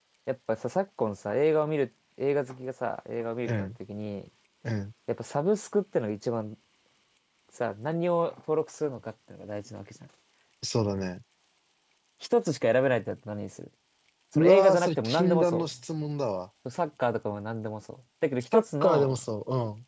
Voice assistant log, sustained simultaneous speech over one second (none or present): present